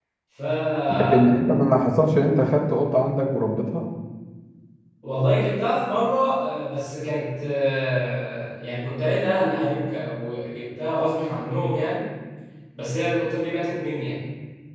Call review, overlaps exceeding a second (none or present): none